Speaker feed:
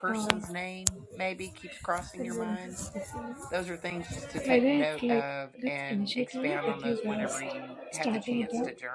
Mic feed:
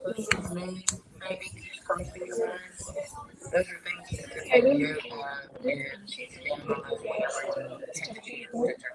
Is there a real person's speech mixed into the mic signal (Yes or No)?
No